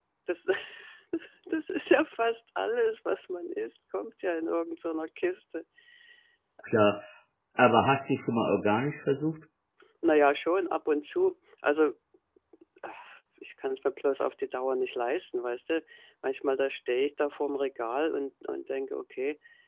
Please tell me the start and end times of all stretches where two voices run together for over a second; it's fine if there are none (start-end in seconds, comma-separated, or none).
none